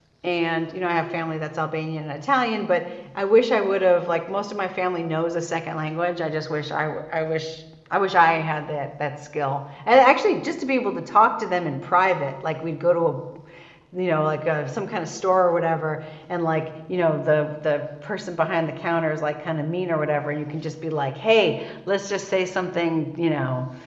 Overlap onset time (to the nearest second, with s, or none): none